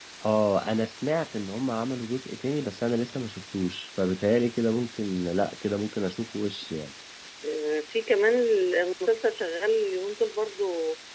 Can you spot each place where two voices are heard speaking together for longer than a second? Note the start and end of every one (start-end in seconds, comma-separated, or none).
none